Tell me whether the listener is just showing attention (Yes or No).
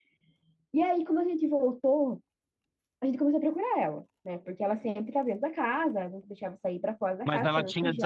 No